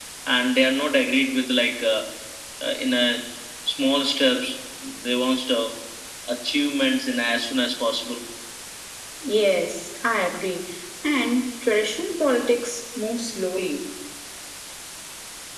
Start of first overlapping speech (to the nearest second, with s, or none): none